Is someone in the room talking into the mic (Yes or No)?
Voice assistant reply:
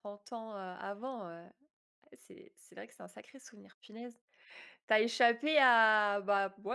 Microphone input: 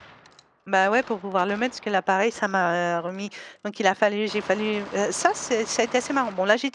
Yes